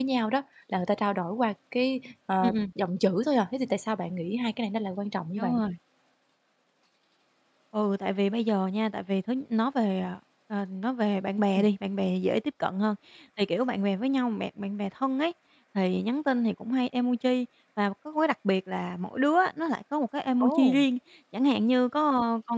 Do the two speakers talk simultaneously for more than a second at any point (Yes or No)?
No